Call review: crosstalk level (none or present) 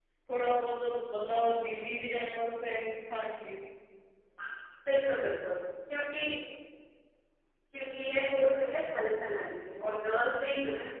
none